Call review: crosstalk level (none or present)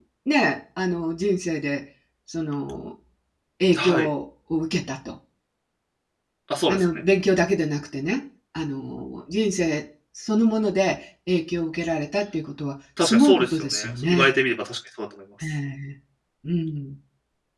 present